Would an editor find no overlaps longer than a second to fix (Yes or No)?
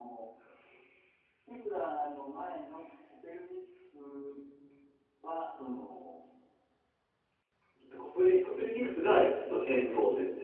Yes